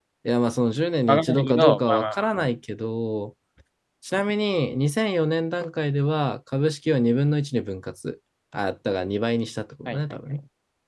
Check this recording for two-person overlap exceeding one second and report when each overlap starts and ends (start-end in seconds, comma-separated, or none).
1.1-2.5